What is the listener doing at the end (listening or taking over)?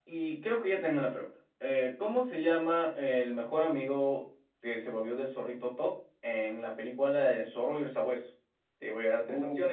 listening